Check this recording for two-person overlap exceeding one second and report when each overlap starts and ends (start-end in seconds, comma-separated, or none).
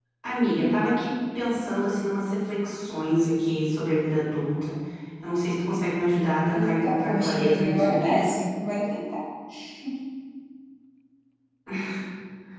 6.6-8.3